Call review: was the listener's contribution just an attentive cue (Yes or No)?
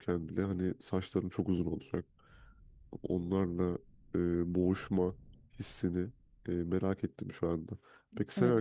No